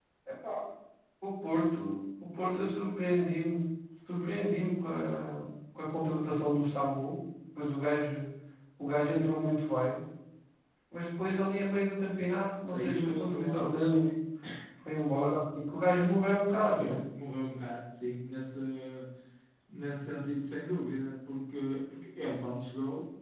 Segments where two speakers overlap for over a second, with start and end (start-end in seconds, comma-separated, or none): 12.6-14.1